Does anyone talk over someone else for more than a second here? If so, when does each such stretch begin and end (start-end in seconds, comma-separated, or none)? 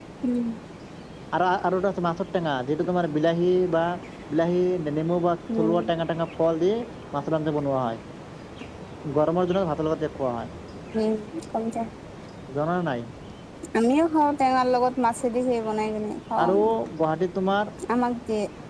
none